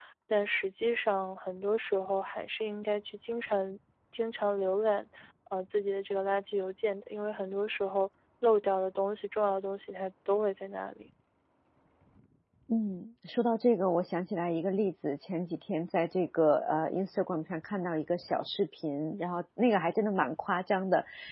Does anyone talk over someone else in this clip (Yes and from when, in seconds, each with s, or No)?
No